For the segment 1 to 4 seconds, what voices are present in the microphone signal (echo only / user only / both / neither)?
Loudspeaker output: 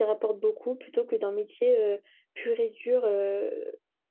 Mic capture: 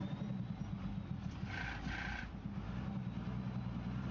neither